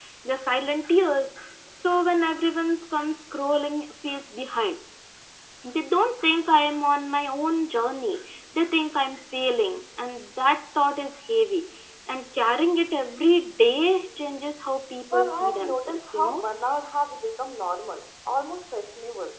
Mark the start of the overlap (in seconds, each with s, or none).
15.1 s